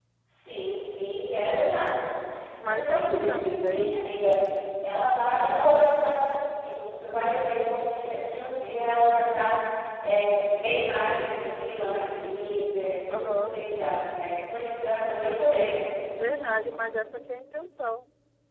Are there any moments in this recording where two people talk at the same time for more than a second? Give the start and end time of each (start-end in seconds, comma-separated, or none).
2.6-4.1